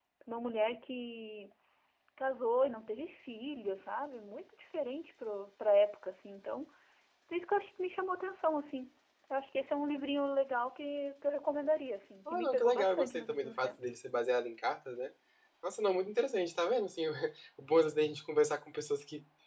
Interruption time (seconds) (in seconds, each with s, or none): 12.2 s